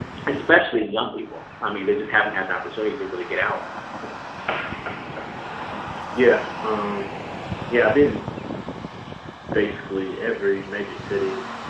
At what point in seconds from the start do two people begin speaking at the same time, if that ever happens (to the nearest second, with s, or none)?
none